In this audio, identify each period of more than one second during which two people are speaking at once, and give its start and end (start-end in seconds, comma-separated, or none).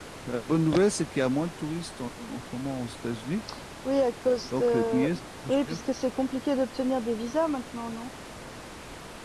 none